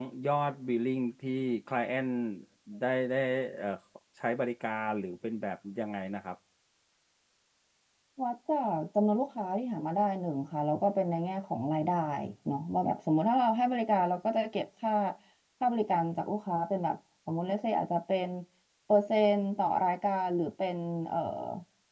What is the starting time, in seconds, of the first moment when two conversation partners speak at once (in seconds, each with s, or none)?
none